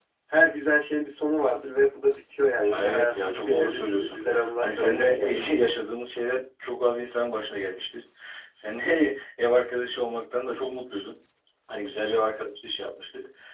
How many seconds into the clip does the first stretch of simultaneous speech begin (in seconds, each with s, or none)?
2.6 s